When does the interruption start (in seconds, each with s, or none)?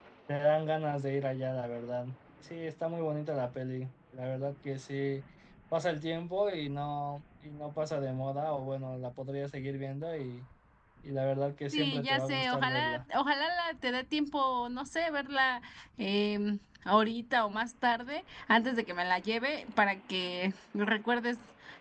11.7 s